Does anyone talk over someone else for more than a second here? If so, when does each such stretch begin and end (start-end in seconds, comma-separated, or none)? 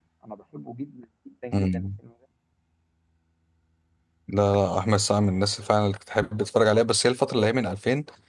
none